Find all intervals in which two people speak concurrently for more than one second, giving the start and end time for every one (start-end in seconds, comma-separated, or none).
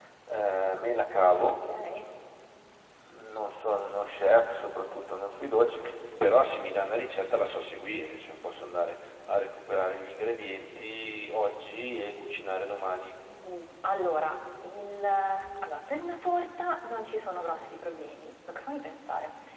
none